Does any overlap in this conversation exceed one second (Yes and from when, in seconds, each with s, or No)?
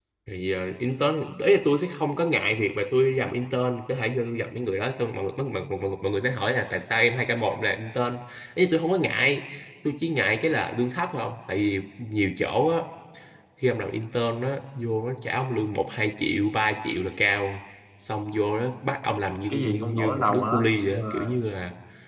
Yes, from 19.5 s